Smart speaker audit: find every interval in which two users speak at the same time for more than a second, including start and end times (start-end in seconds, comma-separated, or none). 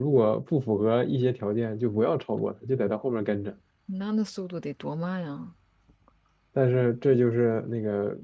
none